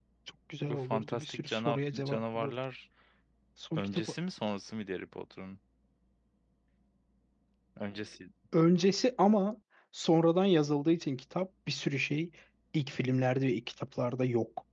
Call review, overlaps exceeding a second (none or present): present